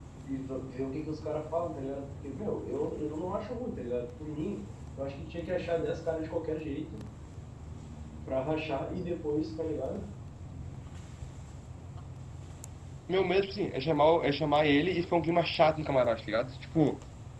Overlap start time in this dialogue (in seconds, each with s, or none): none